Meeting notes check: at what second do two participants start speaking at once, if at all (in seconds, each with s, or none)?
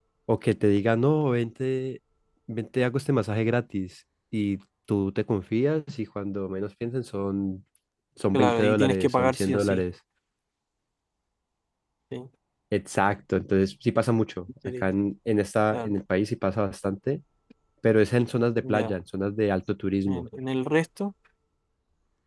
8.3 s